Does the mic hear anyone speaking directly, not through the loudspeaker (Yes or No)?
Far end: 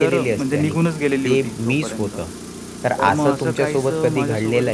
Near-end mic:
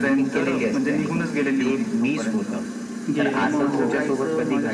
Yes